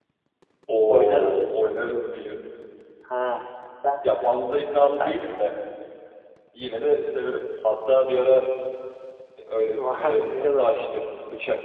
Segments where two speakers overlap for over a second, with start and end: 9.8-11.0

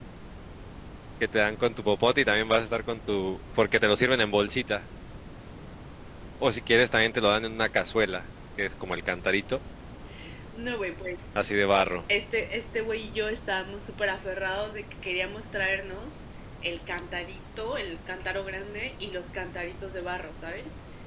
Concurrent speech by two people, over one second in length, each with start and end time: none

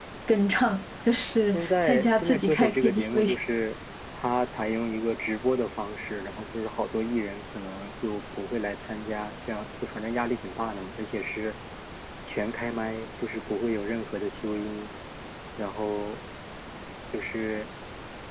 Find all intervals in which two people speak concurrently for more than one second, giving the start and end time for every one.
1.5-3.3

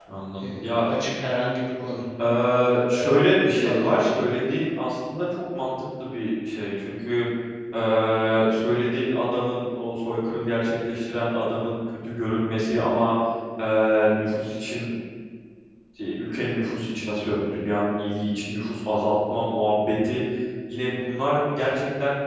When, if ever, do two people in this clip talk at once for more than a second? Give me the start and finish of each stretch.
2.9-4.3

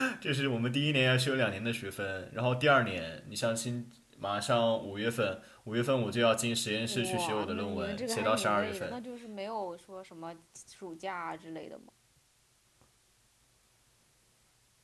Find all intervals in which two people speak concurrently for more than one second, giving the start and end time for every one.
6.9-9.0

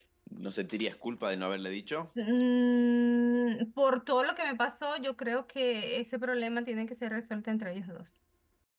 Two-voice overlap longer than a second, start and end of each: none

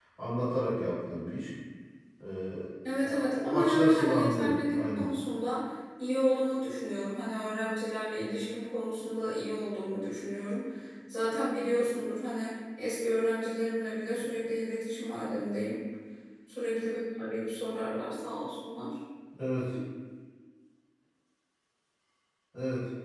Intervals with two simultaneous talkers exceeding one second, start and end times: 3.0-5.1

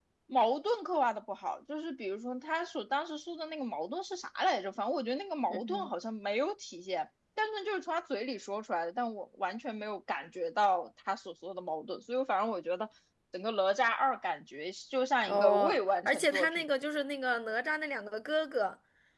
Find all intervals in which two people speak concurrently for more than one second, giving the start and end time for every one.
15.3-16.6

